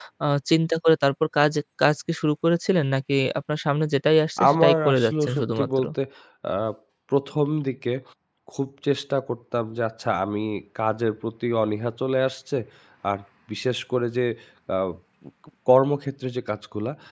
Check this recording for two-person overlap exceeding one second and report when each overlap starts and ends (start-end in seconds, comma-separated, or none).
4.5-5.8